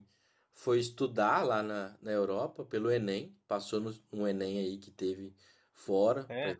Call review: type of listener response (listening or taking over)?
listening